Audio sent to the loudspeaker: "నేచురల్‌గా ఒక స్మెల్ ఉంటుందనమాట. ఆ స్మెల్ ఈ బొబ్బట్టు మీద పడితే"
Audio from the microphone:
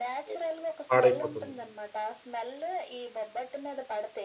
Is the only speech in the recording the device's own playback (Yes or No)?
No